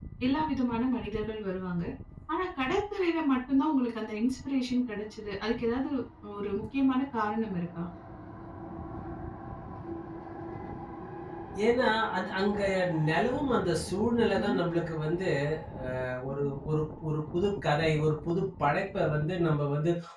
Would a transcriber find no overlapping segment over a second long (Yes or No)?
Yes